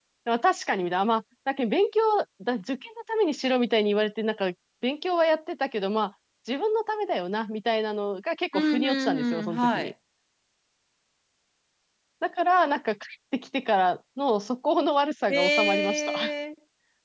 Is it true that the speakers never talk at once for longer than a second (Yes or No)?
No